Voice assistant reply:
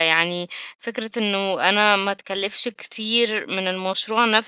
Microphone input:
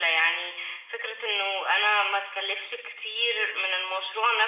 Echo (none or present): present